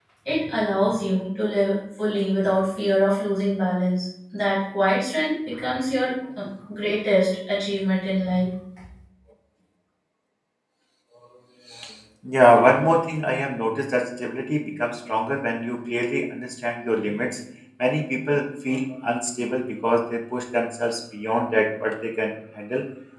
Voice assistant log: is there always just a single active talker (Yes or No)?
Yes